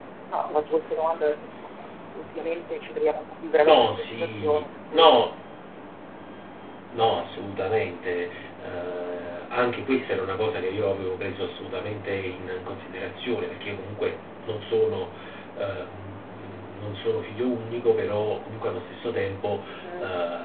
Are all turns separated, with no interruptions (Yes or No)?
No